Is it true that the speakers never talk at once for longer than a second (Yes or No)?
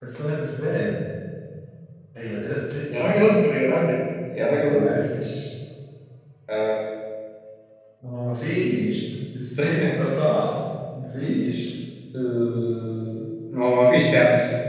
Yes